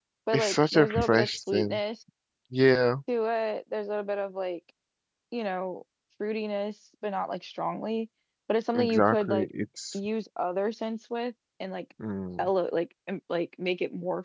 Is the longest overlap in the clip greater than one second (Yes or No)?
Yes